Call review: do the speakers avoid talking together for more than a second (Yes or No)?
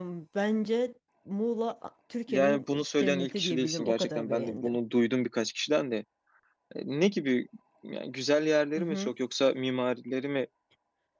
No